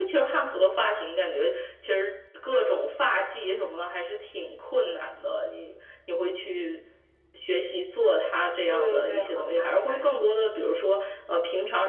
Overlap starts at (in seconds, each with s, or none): 8.7 s